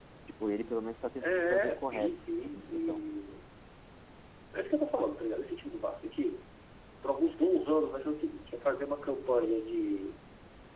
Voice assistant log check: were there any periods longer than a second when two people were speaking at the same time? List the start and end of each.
1.2-3.0

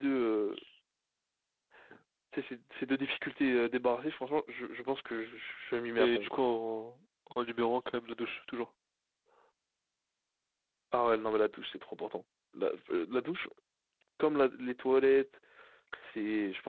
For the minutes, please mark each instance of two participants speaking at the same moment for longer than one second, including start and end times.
none

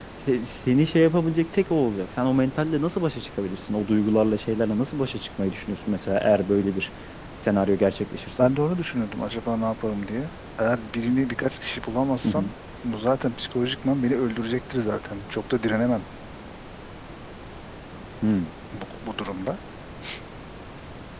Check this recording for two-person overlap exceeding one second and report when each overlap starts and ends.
none

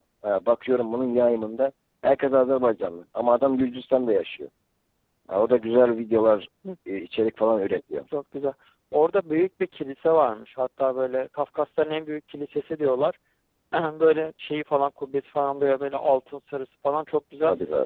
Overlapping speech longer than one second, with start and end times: none

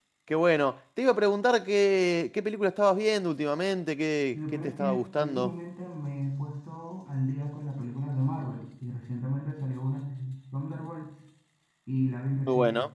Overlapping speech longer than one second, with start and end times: 4.3-5.5

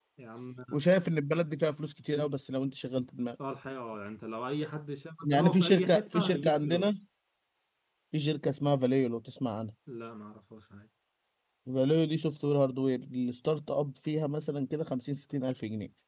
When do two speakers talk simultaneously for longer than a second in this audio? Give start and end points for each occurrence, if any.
5.2-6.9

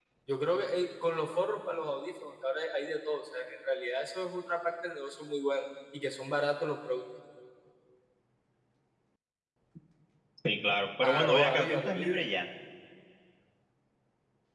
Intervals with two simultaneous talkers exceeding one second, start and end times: 11.0-12.2

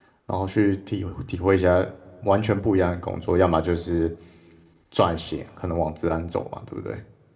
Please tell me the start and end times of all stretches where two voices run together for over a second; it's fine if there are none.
none

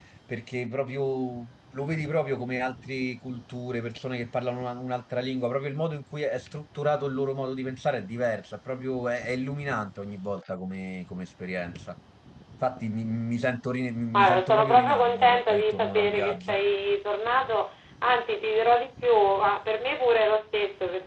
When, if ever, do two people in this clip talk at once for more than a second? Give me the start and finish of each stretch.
14.1-16.6

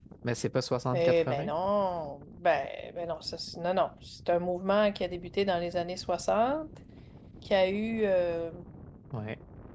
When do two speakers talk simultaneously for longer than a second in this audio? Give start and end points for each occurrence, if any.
none

